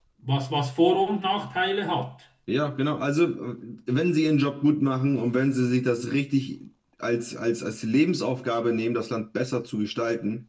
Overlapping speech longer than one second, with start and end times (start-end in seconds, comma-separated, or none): none